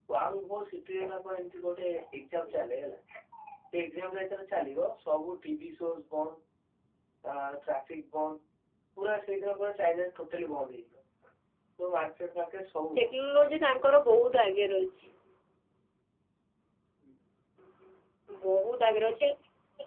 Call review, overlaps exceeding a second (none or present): none